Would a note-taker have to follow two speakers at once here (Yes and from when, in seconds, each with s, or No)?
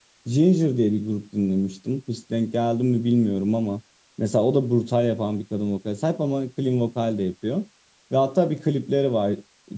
No